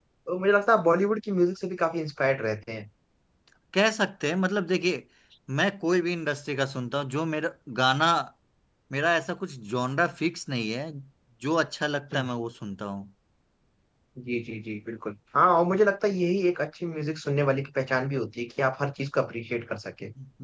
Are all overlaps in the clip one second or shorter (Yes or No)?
Yes